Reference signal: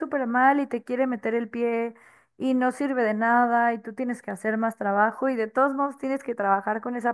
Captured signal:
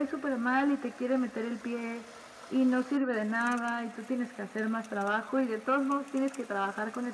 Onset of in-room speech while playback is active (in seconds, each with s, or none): none